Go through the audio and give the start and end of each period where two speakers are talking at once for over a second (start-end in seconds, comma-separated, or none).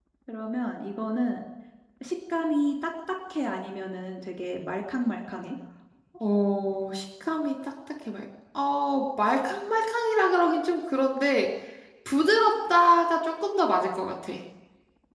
none